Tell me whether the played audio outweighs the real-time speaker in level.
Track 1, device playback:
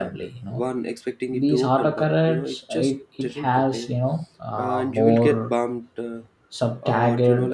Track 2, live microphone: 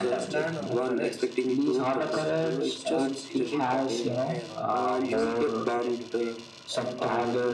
Yes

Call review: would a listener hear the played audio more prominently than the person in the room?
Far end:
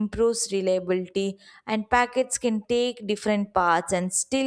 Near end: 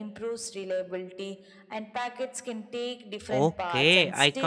No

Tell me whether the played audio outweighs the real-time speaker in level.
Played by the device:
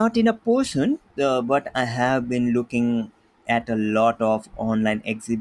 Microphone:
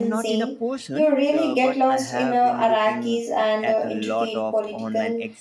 No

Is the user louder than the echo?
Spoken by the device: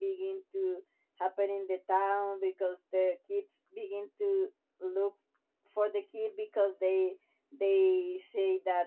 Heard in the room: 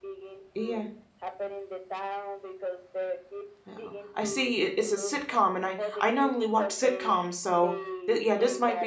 Yes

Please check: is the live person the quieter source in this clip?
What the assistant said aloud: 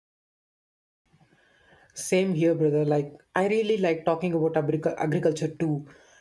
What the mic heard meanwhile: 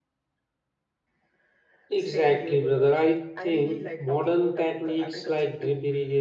No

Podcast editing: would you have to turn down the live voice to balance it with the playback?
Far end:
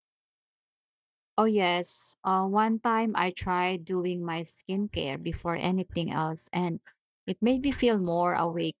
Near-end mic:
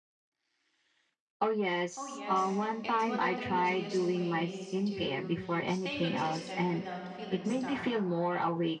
No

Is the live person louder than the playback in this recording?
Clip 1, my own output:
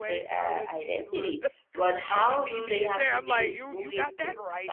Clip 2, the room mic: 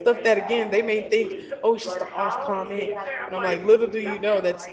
Yes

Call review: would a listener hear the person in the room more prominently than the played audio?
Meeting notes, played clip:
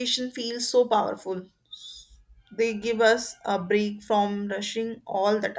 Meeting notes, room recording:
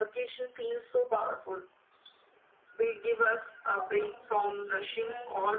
No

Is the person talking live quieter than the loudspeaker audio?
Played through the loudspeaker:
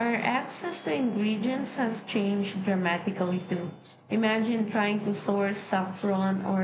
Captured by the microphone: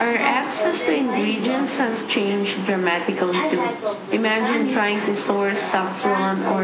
Yes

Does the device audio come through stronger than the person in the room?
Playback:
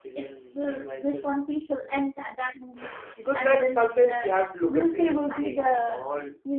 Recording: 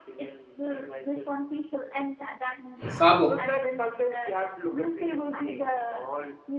No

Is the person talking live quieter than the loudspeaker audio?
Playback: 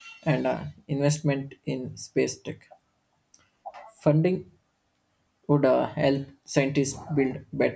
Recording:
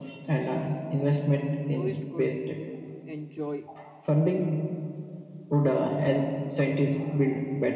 Yes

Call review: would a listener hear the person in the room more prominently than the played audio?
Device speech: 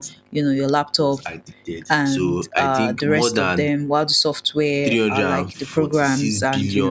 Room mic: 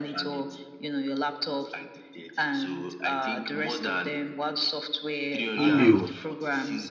Yes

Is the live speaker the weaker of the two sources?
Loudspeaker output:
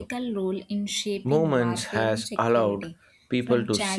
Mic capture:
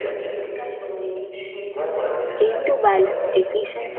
No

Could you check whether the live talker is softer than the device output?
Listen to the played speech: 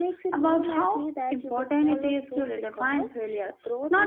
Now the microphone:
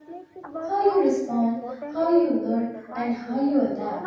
No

